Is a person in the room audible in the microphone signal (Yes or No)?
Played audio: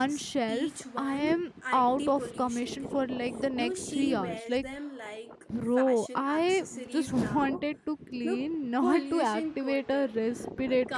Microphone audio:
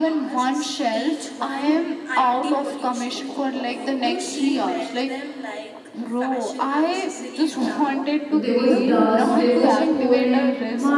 Yes